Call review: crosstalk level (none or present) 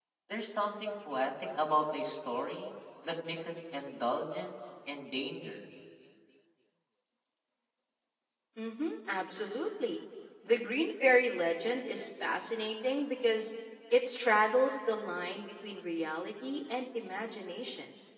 none